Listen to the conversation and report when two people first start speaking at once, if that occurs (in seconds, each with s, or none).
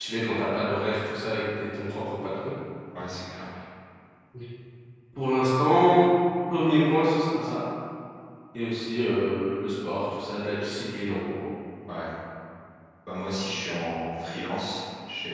none